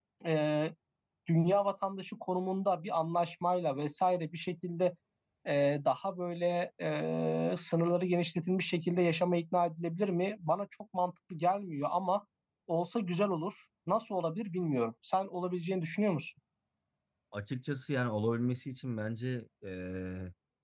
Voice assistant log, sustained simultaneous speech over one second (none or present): none